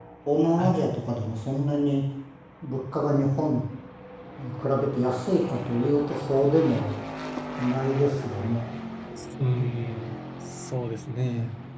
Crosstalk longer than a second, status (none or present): none